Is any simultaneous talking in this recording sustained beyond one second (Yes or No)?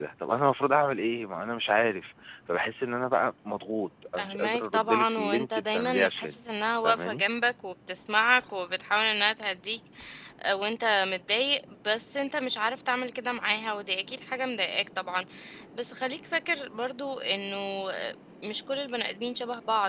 Yes